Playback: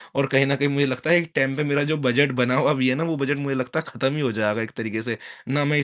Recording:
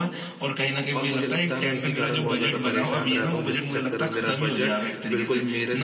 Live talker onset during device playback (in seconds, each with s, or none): 0.9 s